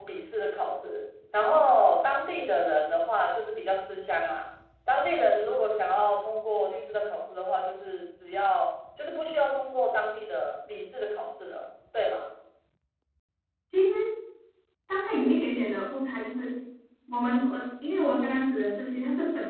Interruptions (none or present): none